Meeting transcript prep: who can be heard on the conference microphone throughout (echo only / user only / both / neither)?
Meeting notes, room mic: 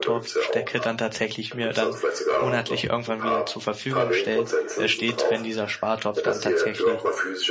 both